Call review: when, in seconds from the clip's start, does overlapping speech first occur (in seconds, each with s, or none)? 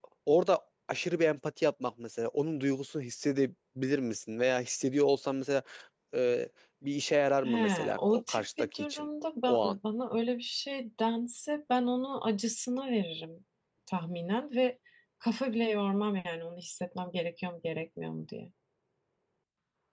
7.4 s